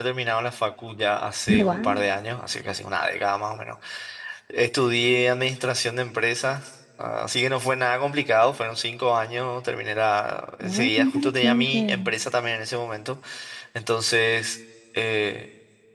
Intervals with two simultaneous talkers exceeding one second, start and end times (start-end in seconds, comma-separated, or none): 10.6-12.1